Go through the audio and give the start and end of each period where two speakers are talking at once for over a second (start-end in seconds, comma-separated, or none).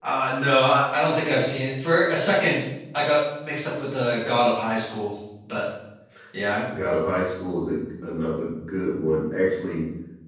none